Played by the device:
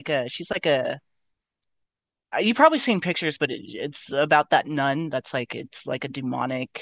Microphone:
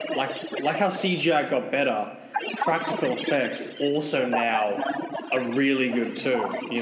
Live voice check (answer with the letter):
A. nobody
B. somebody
B